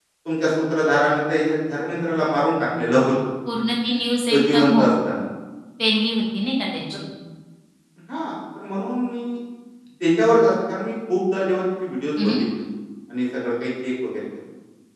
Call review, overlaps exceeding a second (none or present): none